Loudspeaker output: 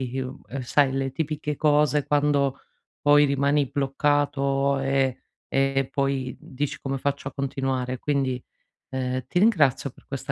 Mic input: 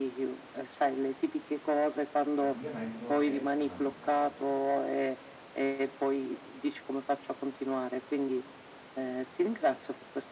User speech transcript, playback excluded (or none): L'abbigliamento è fondamentale.